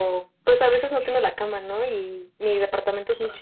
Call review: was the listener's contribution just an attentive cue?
Yes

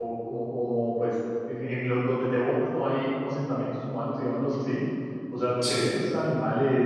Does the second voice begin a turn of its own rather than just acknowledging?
No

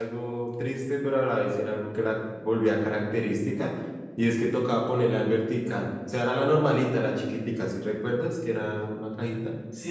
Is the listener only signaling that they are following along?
No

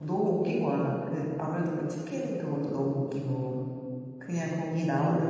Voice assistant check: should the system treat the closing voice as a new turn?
No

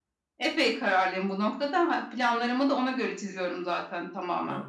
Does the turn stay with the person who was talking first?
Yes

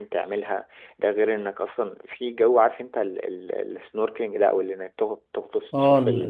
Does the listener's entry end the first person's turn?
Yes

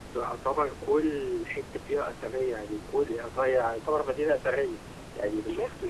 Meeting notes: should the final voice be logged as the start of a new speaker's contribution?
No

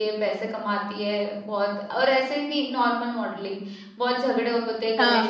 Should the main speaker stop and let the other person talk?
No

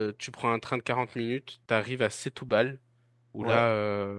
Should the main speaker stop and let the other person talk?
No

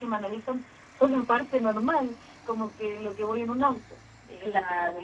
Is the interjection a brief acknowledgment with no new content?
Yes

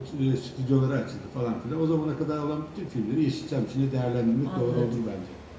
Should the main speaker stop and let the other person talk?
Yes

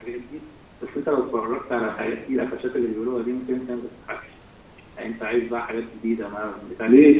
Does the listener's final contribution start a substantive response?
Yes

